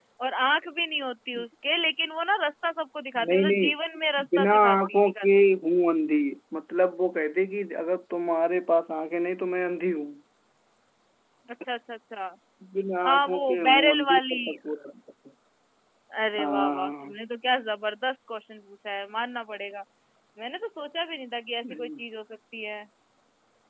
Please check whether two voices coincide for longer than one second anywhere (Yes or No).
Yes